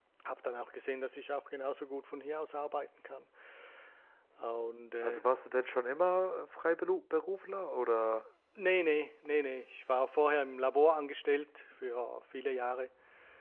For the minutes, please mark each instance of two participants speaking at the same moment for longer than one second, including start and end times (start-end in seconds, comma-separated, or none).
none